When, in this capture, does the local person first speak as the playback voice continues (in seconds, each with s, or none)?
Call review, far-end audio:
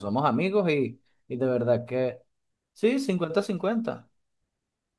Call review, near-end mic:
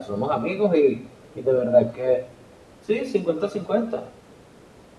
none